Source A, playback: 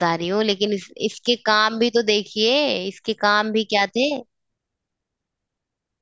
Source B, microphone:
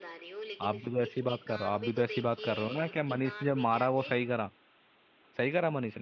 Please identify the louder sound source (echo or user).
user